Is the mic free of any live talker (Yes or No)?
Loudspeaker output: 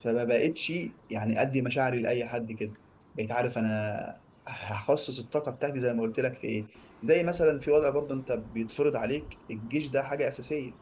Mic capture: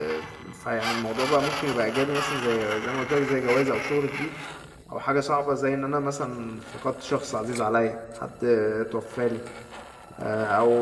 No